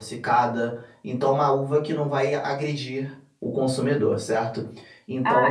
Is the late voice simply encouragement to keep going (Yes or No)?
No